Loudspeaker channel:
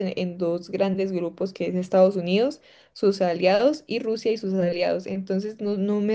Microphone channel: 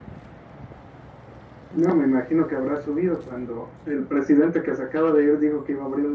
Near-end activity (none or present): present